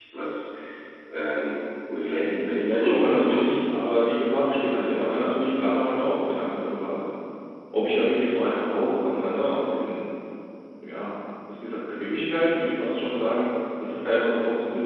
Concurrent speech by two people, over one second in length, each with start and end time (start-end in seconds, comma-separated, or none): 2.2-3.6